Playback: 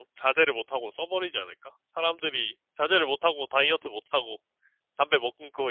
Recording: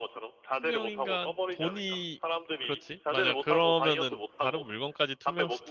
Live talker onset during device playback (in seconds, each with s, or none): 0.6 s